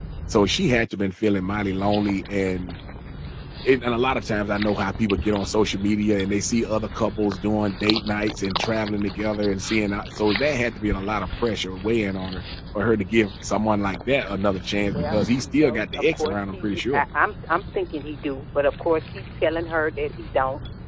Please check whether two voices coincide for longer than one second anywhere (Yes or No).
Yes